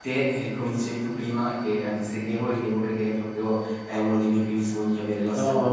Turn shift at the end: Yes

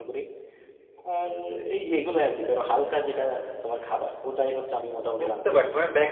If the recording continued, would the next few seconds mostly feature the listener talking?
Yes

